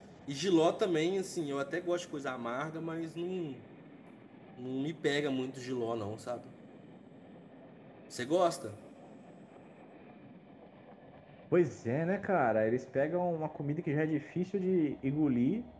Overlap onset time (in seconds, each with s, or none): none